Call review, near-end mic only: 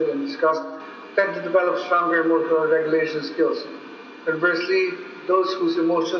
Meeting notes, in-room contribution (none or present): none